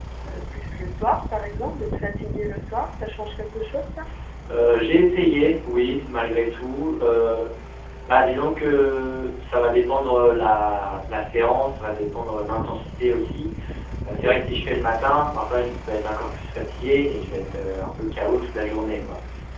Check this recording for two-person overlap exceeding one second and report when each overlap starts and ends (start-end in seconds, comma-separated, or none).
none